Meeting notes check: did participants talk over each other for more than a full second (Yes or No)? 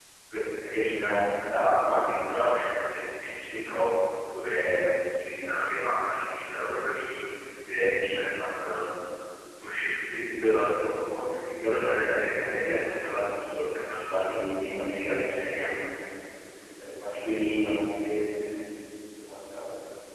Yes